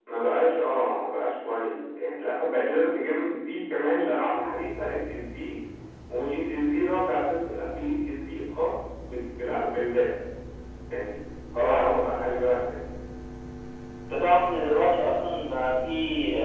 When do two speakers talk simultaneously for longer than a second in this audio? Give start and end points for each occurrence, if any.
none

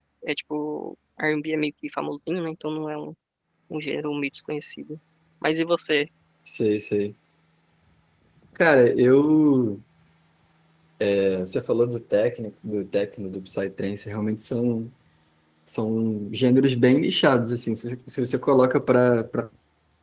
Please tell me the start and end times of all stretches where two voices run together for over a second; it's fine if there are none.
none

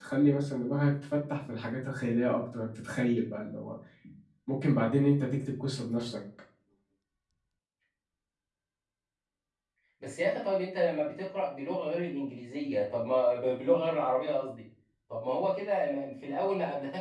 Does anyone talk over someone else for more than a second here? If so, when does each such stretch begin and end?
none

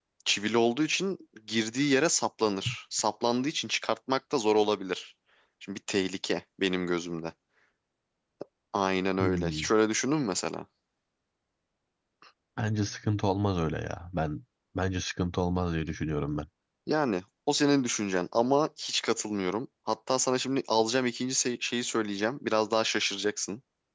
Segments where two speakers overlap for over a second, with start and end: none

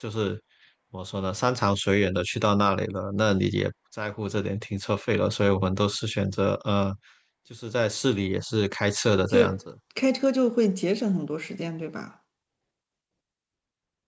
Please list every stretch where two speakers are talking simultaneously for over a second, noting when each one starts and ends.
none

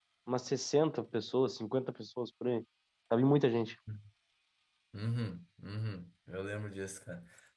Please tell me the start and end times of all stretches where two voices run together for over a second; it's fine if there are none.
none

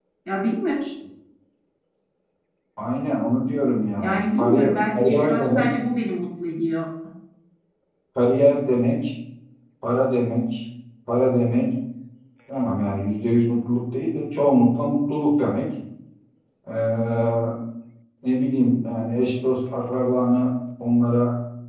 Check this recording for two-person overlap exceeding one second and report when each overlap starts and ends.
4.0-5.7

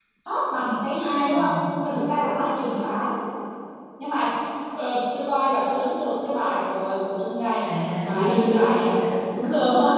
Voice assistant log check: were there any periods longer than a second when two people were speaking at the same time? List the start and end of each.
7.7-9.0

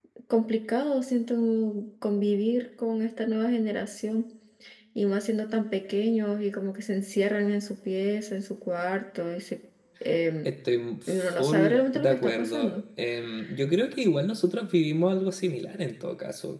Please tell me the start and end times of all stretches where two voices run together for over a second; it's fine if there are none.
11.1-12.8

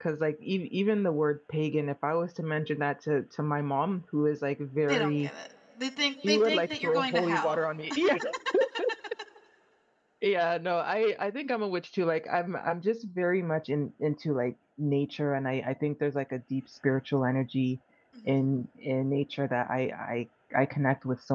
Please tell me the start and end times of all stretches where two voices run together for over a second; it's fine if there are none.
6.3-7.6

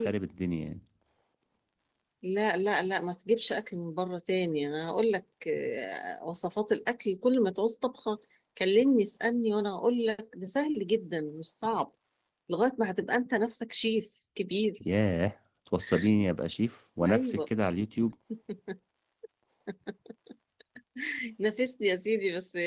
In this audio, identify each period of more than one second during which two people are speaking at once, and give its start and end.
none

